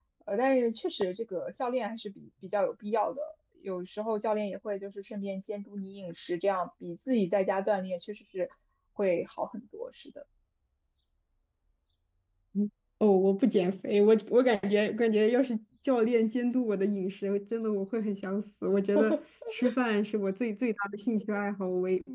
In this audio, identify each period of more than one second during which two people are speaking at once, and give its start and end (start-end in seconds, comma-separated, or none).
none